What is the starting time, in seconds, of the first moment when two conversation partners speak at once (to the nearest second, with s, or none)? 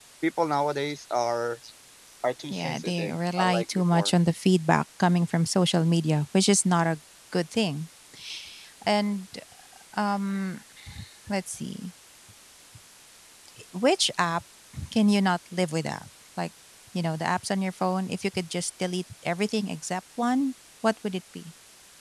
2 s